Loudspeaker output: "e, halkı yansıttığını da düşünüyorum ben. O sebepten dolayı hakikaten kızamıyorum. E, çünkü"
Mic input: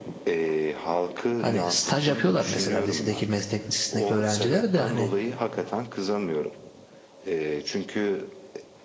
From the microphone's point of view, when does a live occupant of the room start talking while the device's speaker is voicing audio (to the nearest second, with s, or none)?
1 s